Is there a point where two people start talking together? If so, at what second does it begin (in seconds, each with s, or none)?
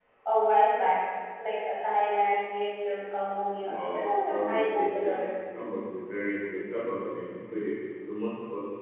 3.6 s